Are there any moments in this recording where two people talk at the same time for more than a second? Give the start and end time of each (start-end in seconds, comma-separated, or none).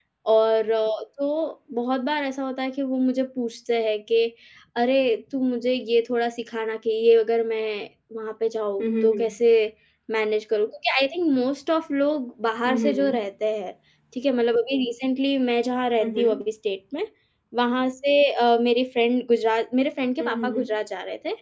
none